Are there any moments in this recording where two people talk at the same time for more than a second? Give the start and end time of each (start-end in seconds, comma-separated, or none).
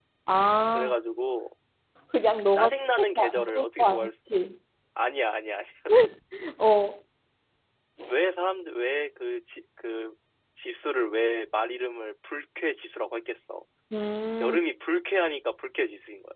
2.5-4.1